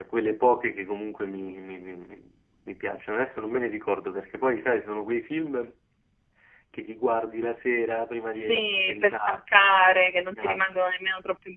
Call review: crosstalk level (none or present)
present